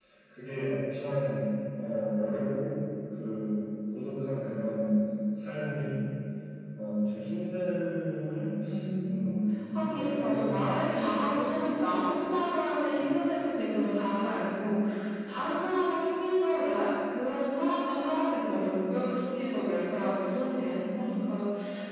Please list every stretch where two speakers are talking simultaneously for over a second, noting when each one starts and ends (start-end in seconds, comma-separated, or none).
9.7-11.5